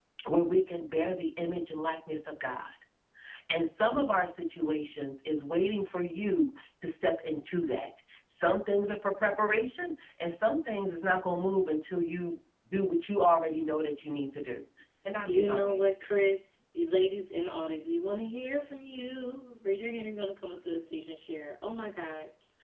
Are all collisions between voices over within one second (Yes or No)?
Yes